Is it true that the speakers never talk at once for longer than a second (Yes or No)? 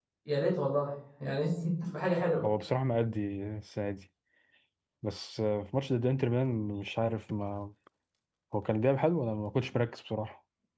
Yes